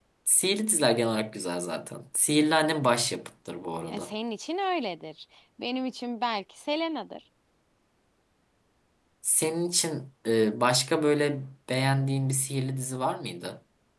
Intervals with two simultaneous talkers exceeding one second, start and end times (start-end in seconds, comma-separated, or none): none